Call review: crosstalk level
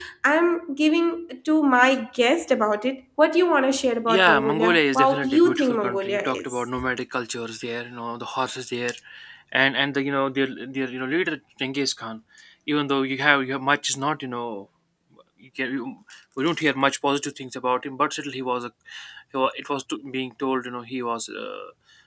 present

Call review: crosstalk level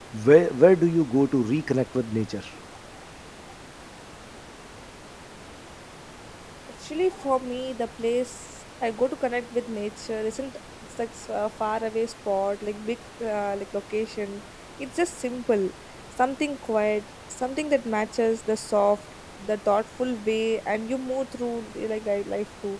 none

